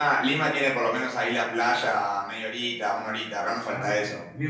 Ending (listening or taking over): taking over